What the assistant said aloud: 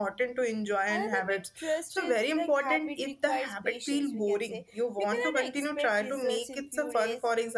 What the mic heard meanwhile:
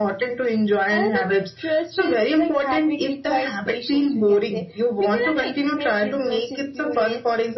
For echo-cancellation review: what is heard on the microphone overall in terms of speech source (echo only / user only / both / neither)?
echo only